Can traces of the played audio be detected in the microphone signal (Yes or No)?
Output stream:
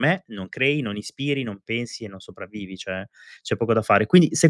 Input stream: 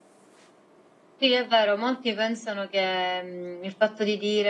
No